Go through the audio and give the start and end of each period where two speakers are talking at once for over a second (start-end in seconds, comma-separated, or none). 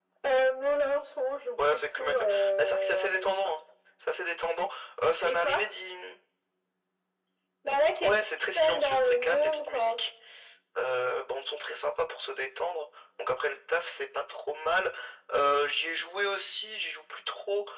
1.7-3.5, 8.0-10.0